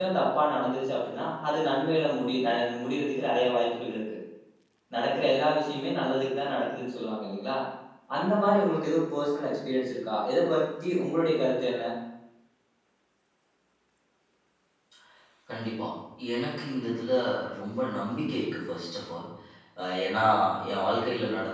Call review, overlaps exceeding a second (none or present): none